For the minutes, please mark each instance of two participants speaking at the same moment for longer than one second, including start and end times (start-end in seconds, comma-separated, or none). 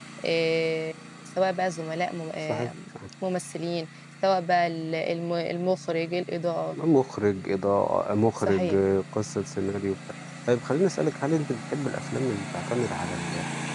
none